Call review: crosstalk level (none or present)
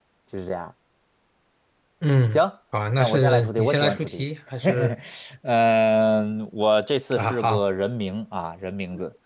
present